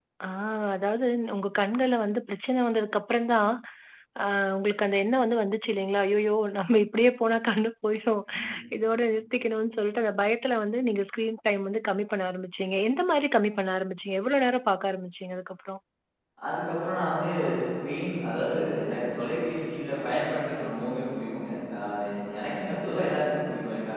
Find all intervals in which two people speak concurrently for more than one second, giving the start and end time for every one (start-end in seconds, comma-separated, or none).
none